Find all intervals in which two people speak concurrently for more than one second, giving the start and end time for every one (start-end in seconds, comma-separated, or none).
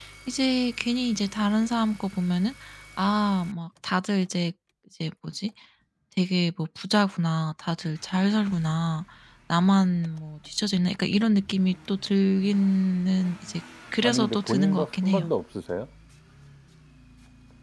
14.0-15.2